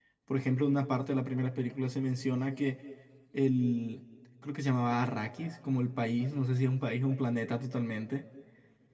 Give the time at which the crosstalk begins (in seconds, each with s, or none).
none